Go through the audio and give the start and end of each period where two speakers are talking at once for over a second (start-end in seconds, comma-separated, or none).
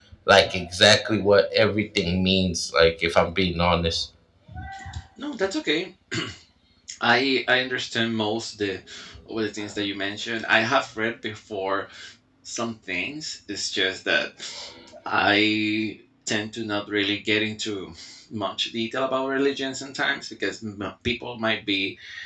none